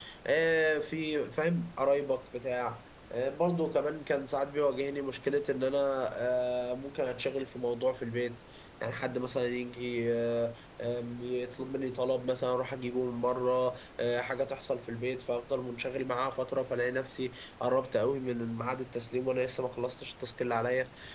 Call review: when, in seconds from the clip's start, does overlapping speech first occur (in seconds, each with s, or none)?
none